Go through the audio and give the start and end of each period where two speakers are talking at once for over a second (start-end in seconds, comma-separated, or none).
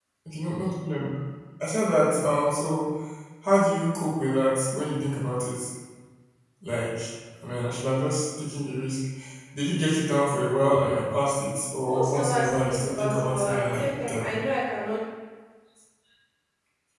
11.8-14.3